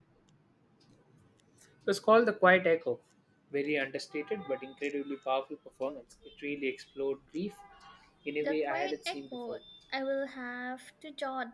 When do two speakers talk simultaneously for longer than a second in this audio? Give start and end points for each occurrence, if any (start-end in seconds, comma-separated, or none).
8.4-9.6